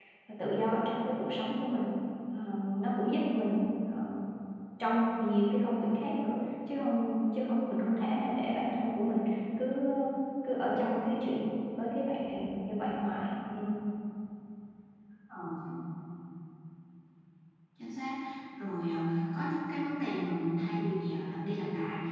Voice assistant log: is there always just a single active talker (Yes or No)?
Yes